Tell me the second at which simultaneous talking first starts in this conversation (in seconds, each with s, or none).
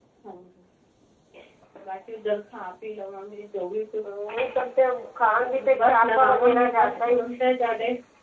5.5 s